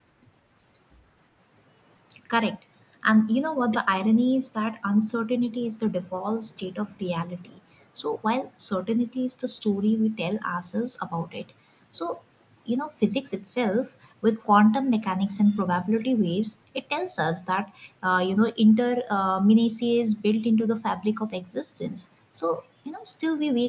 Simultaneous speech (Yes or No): No